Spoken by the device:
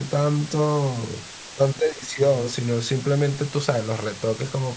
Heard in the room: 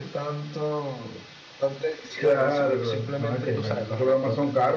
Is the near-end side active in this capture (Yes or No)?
Yes